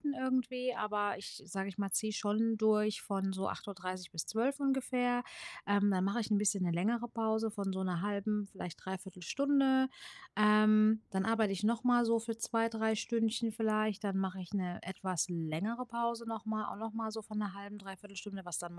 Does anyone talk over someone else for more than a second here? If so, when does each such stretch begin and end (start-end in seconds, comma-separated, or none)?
none